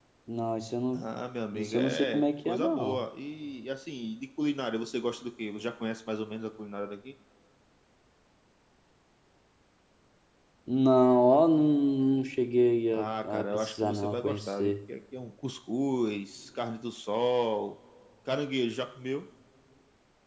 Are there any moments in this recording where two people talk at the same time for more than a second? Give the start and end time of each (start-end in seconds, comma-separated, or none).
1.5-3.0, 12.9-14.7